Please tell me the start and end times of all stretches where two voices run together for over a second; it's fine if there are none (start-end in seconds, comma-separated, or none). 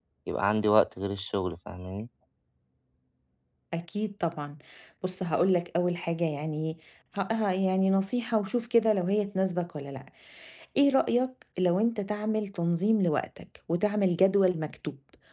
none